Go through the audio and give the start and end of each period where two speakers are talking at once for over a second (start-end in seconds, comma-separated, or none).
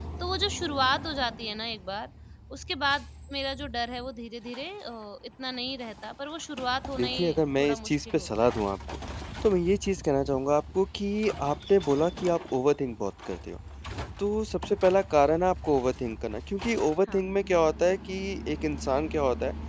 7.0-8.6